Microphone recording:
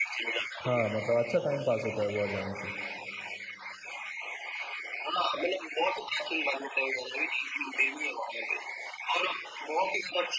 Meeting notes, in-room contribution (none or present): present